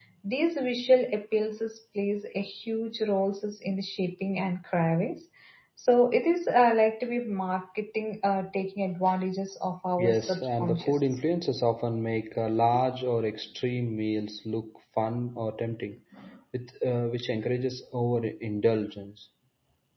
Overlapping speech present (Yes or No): Yes